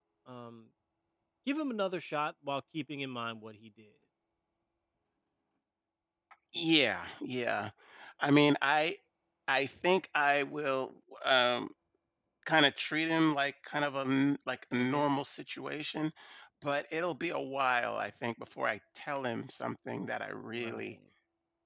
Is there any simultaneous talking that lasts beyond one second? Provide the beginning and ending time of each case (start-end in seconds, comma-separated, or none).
none